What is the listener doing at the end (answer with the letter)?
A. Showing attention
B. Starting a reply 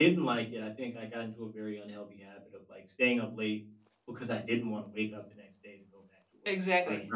B